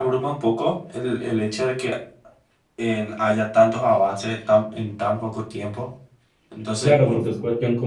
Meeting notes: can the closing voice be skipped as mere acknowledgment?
No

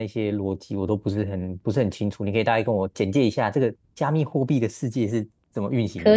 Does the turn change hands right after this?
Yes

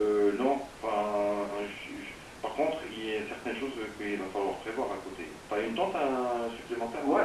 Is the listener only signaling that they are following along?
No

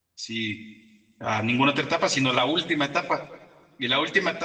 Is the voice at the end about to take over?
No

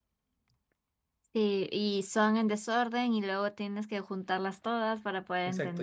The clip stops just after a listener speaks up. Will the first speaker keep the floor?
No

